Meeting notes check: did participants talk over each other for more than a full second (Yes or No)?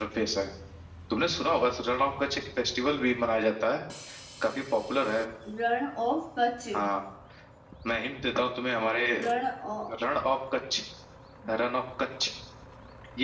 No